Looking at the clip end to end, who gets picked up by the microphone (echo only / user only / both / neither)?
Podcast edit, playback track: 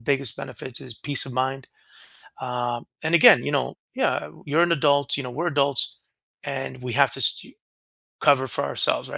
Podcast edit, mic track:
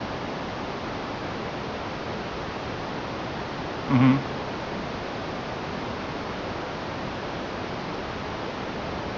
user only